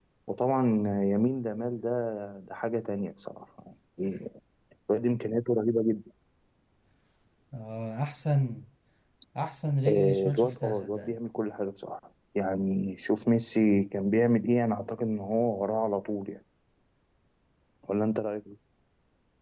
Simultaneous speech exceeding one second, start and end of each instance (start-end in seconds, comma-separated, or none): 9.9-11.1